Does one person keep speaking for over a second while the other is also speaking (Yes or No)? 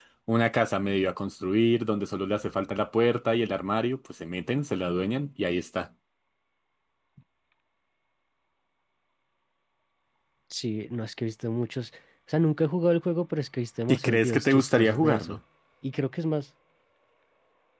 Yes